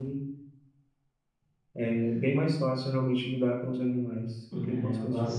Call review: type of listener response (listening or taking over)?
taking over